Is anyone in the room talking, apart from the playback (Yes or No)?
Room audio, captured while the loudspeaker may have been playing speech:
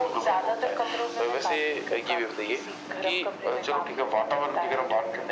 No